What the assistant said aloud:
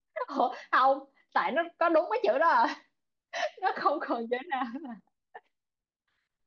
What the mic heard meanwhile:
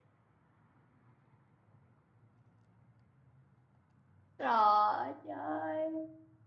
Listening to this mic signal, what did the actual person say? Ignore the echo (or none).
rồi chơi